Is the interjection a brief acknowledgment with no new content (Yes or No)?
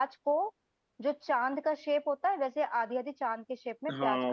No